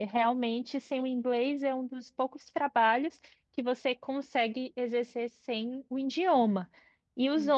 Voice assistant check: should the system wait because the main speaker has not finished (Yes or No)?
Yes